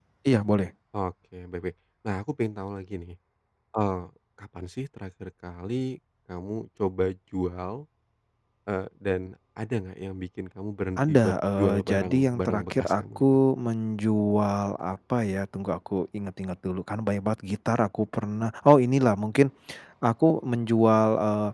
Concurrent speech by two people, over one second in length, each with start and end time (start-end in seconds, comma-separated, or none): 11.0-13.2